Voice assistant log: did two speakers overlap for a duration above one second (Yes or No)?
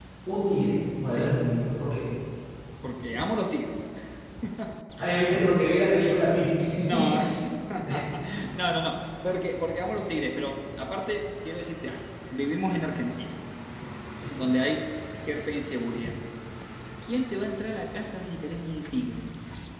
No